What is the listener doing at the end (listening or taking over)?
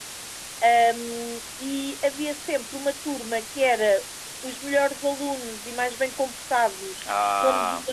listening